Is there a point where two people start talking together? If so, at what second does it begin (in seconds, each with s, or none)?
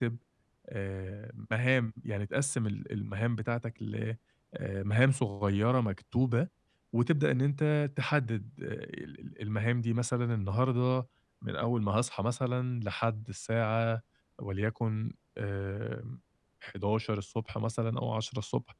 none